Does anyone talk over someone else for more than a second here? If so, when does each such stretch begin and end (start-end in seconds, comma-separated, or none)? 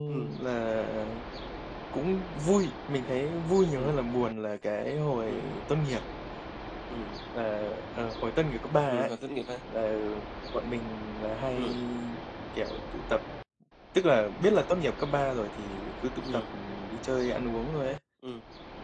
none